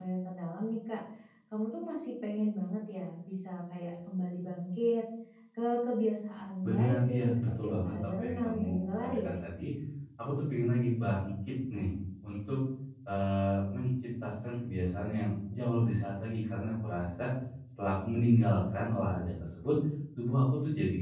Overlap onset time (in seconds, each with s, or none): 6.6 s